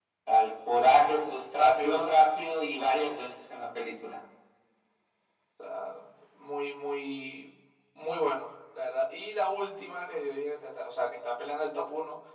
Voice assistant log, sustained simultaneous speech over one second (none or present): none